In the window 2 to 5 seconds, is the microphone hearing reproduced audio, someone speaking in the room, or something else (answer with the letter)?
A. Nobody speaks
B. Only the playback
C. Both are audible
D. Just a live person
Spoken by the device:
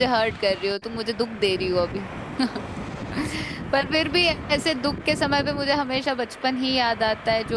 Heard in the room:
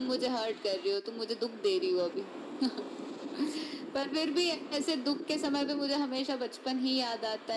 B